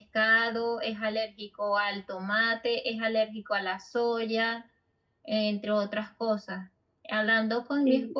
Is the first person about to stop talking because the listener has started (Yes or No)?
No